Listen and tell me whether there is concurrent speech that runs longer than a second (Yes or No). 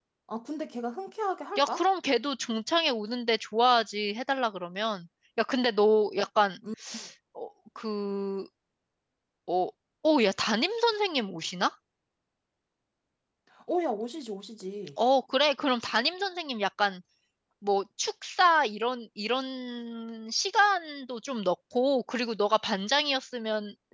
No